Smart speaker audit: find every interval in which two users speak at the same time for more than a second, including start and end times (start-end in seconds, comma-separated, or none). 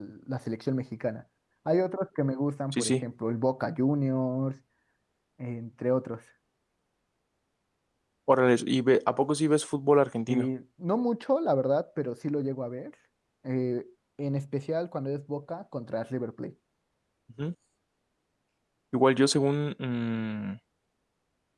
none